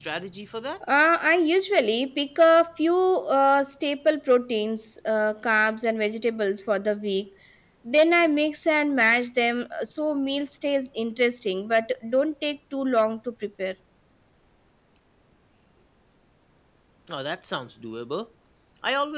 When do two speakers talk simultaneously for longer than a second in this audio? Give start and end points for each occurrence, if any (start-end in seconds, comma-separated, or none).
none